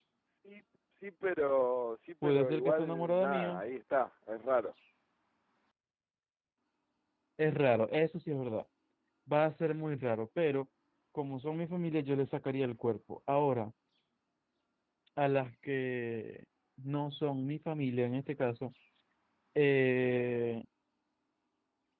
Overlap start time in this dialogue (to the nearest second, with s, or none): 2 s